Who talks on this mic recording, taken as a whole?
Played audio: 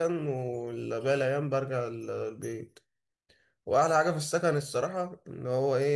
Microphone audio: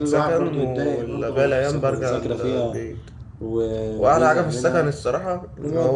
both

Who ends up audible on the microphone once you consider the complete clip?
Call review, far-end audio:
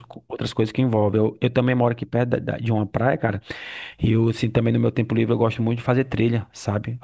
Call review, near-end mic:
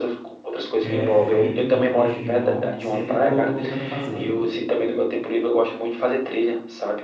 both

